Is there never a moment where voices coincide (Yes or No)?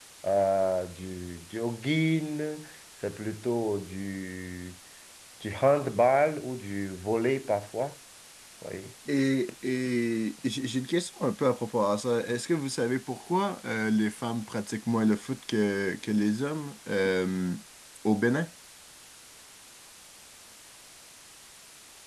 Yes